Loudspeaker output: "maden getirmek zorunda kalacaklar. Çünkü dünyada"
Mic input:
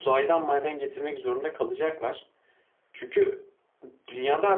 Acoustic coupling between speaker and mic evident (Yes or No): Yes